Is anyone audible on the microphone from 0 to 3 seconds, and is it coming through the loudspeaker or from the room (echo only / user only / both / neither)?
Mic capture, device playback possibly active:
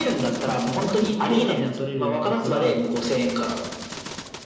both